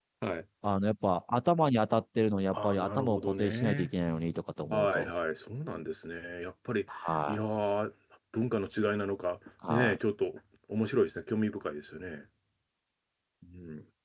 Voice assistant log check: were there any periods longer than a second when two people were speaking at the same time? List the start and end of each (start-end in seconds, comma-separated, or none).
2.5-3.9